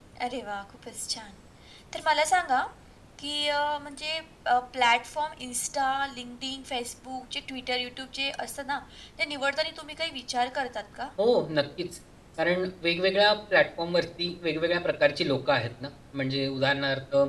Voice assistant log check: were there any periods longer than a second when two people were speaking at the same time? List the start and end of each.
none

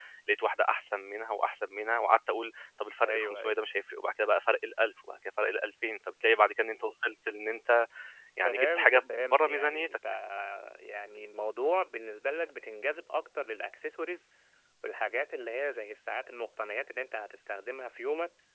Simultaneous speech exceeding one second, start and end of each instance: 8.4-10.0

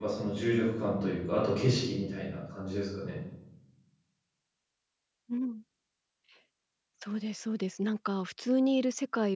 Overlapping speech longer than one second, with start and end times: none

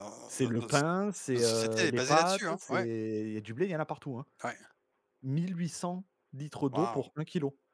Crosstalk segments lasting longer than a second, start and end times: 1.3-2.9

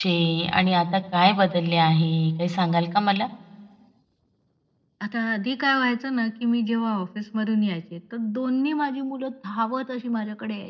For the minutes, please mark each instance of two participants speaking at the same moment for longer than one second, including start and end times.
none

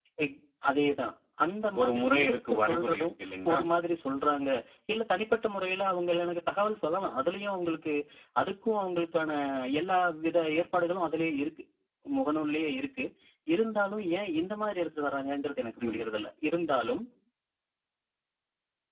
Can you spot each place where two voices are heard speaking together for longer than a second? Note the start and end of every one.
1.8-3.1

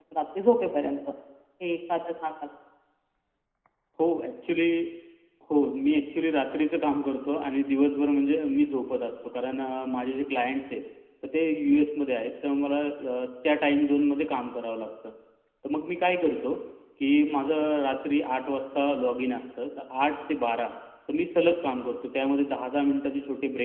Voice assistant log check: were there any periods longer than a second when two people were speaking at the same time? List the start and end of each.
none

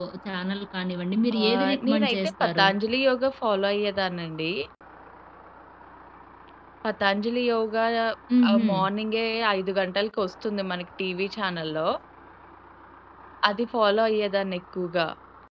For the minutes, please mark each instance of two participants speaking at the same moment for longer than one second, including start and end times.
1.4-2.7

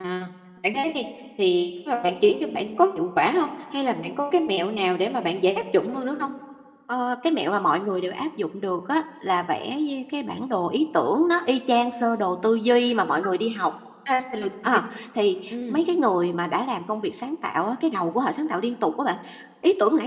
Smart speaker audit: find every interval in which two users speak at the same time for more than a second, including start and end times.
none

